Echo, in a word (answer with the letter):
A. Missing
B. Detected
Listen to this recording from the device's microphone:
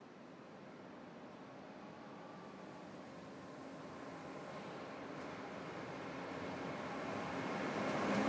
A